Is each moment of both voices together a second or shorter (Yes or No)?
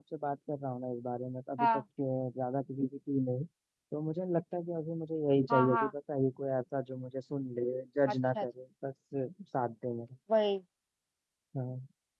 Yes